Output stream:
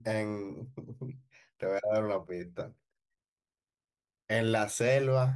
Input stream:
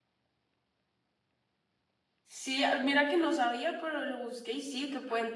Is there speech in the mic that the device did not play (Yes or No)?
Yes